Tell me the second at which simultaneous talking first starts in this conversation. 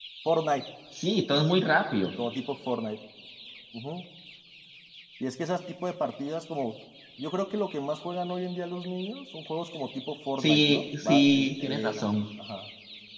10.4 s

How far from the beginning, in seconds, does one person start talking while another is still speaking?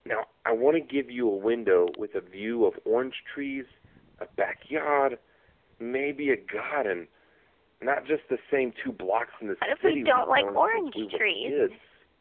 9.6 s

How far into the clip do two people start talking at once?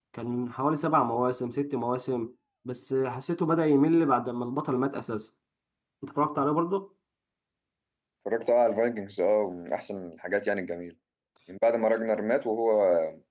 none

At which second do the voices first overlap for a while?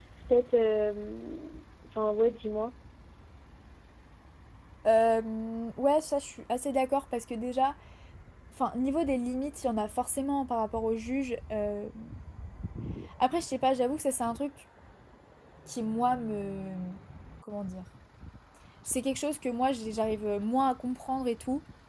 none

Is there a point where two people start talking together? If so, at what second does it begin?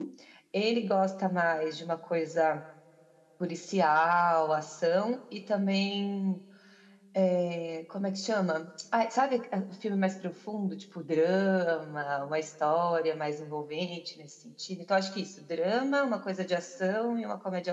none

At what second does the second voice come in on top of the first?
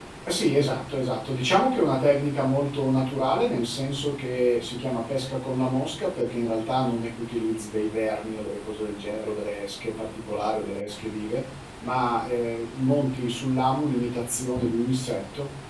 none

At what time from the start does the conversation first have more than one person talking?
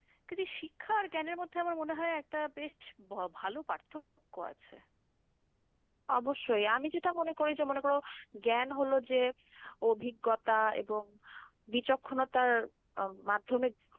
none

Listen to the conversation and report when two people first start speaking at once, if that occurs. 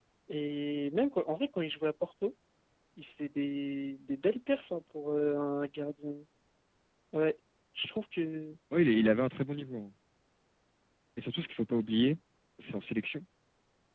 none

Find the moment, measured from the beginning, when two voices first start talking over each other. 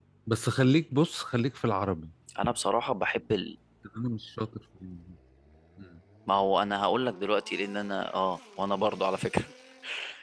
none

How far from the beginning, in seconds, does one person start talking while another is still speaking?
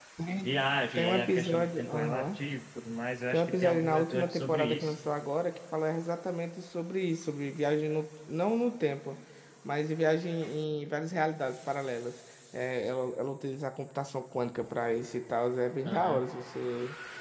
1.0 s

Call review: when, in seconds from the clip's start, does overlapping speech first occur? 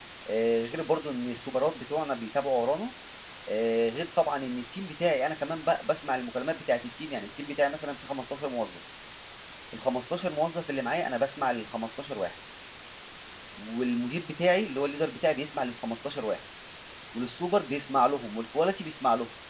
none

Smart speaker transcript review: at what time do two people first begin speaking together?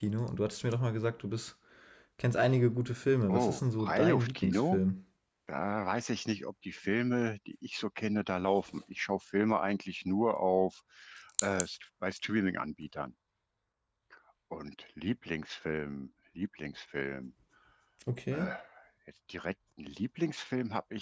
3.3 s

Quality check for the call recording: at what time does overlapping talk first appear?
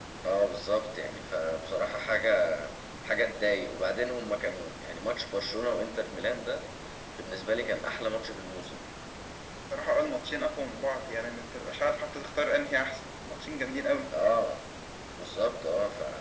none

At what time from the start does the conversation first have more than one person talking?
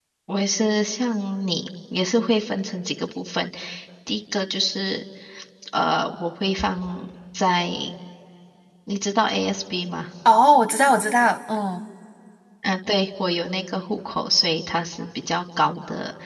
none

